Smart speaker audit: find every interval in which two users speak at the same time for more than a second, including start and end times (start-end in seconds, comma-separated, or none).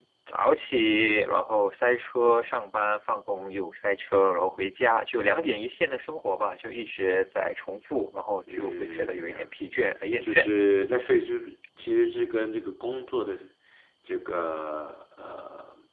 8.5-9.7